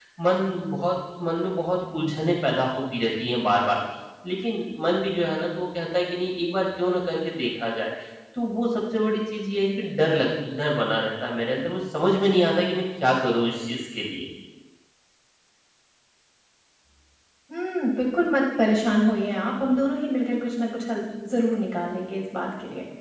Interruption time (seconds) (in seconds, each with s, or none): none